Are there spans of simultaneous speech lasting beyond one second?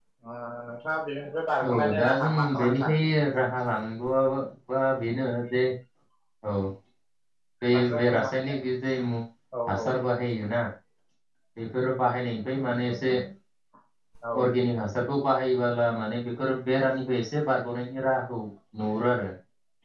Yes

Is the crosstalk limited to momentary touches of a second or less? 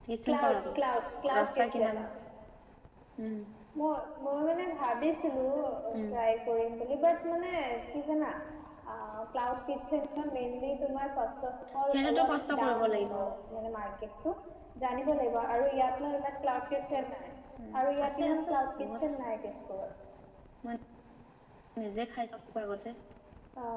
No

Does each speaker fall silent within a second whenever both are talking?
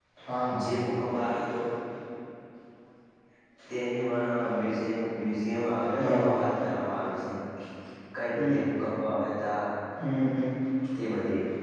Yes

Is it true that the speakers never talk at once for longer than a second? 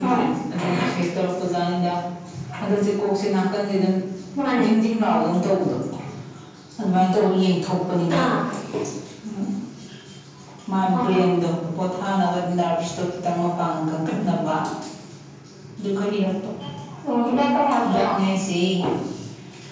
Yes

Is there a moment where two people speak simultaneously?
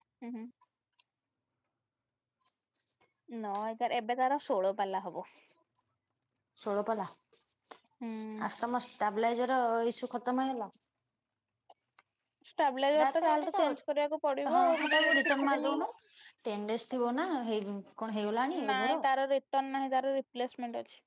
Yes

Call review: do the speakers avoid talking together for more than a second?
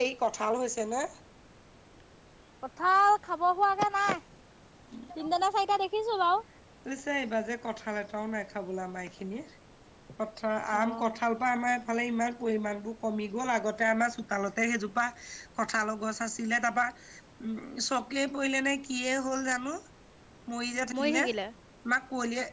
Yes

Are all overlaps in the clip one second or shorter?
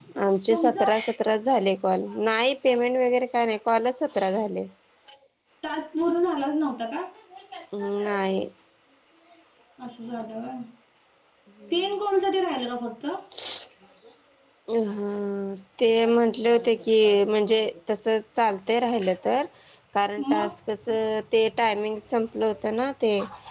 Yes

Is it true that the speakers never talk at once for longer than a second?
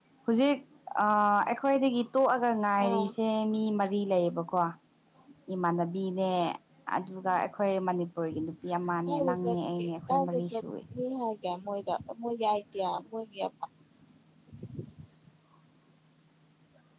No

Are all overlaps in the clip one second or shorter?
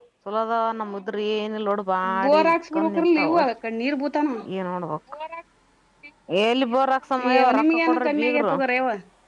No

